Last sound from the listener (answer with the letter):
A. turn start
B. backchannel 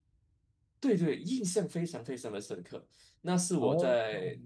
B